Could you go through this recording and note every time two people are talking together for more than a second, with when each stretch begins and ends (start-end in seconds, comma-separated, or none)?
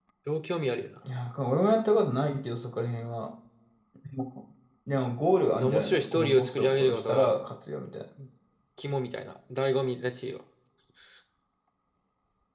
5.6-7.3